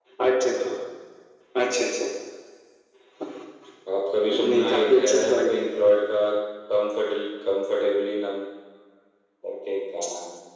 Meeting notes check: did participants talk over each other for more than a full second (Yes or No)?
Yes